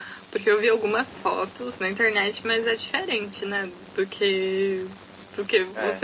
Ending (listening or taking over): listening